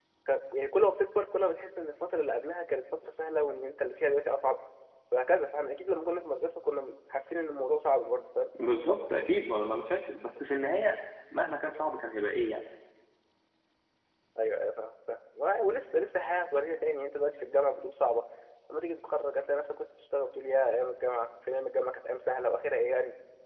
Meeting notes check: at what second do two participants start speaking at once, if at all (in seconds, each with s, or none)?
none